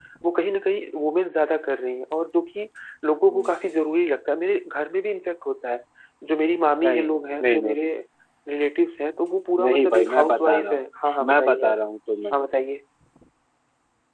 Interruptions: present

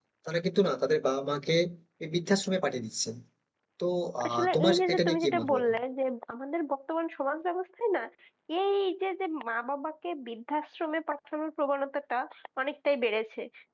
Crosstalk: present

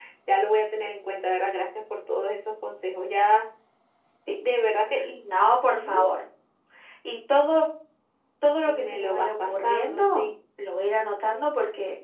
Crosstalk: present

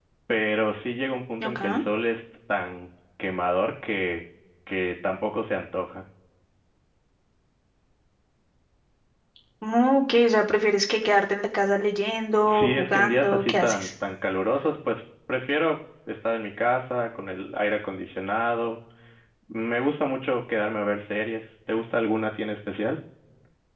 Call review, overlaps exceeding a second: present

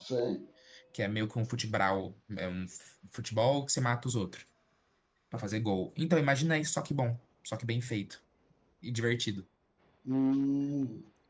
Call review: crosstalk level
none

